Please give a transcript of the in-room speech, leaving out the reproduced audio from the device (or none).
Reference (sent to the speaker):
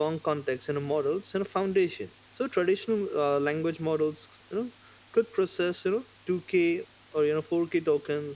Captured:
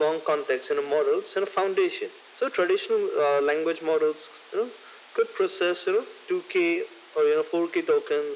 none